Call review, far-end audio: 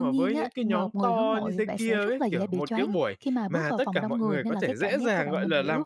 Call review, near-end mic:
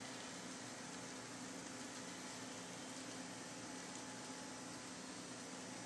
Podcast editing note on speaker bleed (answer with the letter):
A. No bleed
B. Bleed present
A